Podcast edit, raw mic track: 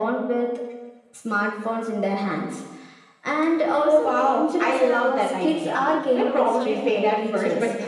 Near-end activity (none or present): present